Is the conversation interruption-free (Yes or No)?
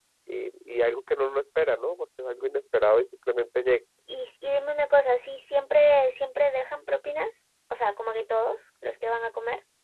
Yes